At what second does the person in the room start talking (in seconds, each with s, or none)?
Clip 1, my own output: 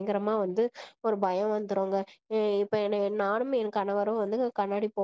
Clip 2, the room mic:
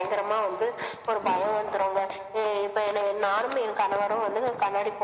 none